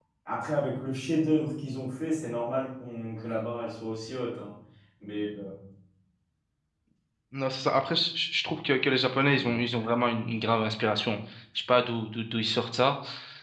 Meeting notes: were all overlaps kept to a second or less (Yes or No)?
Yes